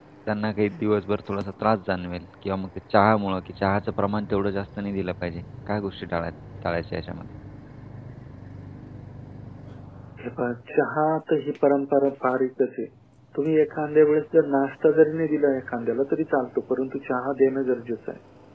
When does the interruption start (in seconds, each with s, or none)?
none